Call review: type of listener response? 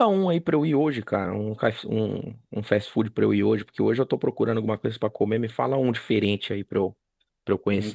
taking over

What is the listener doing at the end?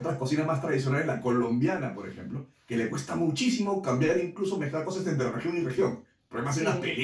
taking over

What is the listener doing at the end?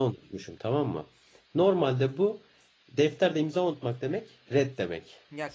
taking over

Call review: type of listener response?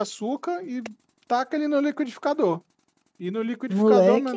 listening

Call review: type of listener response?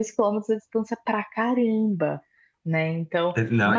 taking over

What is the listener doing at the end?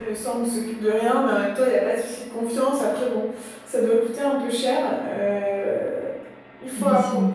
listening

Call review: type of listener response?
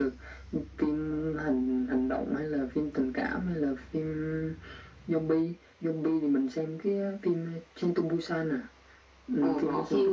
taking over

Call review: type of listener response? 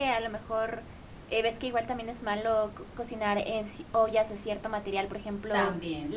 listening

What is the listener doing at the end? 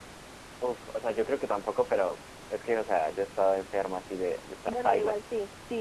taking over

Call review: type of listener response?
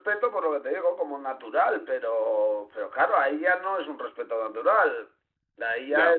listening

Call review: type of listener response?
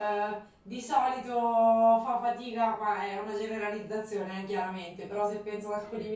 listening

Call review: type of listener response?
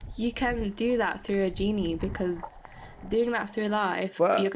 taking over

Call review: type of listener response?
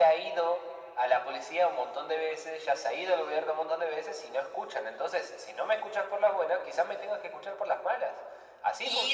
taking over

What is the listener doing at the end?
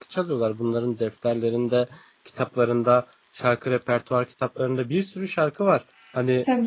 listening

